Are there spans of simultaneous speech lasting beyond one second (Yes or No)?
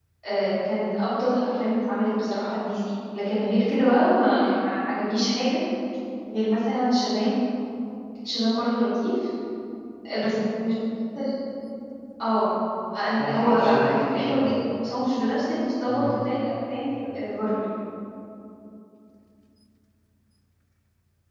Yes